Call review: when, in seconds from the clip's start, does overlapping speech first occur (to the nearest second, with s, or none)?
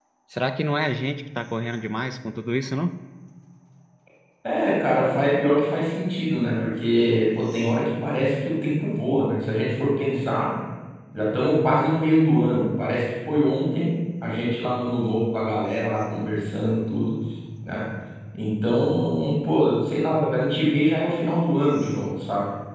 none